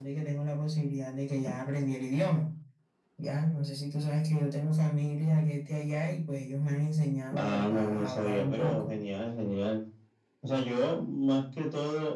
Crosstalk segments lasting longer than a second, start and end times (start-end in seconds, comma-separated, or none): 7.3-8.9